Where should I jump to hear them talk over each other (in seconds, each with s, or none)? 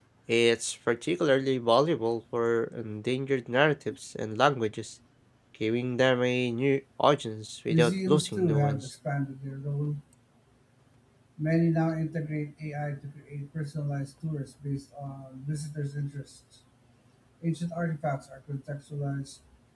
7.7 s